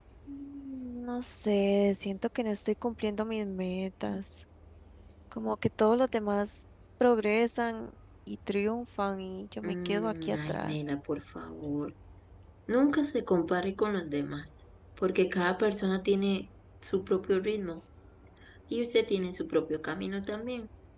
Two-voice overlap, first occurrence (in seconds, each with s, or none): 9.6 s